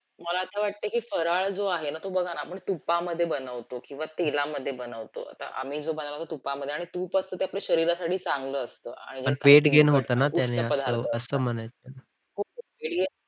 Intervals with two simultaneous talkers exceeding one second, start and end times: 9.3-11.4

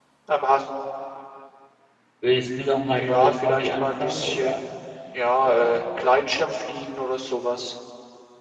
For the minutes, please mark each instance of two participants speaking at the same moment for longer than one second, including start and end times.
3.0-4.6

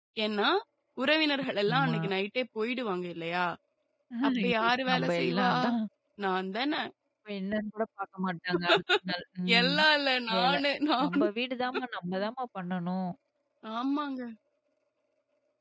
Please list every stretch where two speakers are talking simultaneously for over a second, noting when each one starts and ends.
4.3-5.5

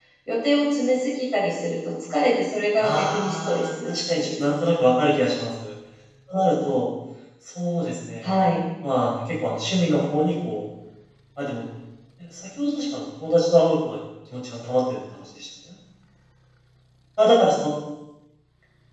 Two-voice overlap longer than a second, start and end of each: 2.8-4.5

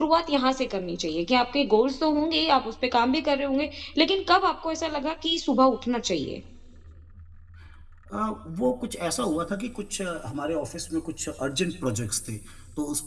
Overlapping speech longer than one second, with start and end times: none

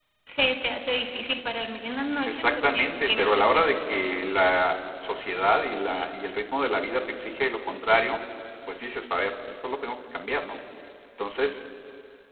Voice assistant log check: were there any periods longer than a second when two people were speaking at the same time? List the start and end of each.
2.2-4.0

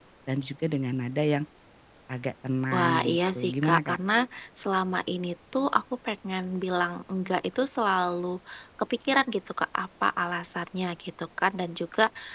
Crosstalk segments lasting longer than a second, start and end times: 2.7-4.0

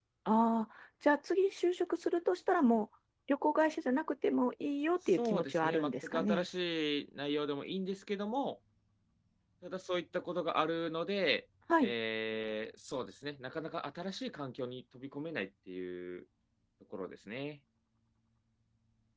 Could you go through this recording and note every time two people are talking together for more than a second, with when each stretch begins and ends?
5.1-6.5

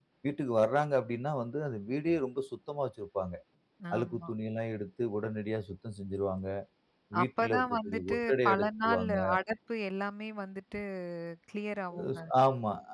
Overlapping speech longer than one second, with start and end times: 7.2-9.2

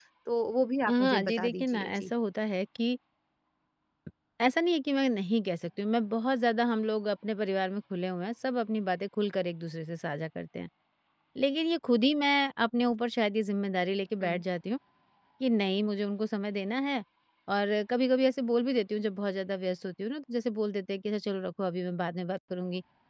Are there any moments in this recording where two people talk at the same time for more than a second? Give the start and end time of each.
0.9-2.1

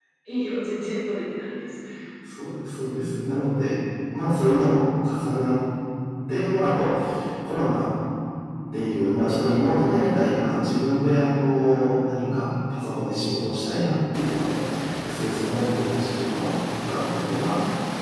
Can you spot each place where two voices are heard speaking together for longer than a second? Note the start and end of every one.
none

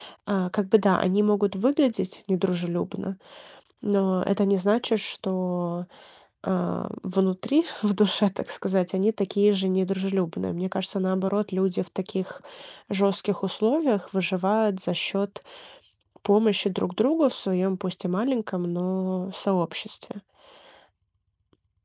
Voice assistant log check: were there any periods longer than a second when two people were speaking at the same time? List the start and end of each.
none

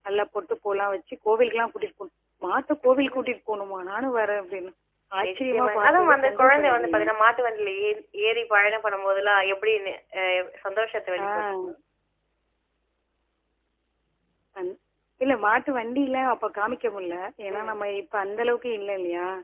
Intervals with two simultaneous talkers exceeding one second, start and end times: 5.2-7.1

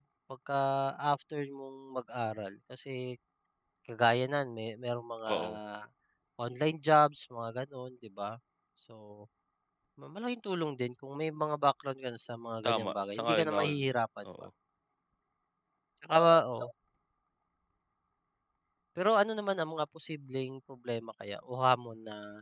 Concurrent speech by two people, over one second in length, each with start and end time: 12.6-13.8

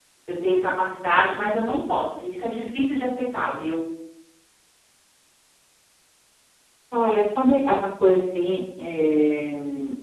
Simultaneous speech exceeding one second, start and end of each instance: none

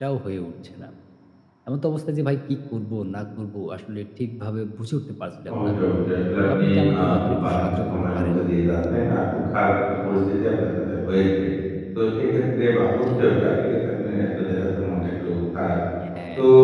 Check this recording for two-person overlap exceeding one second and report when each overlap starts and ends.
6.4-8.4

